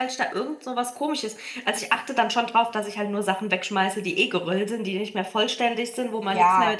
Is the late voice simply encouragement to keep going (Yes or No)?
No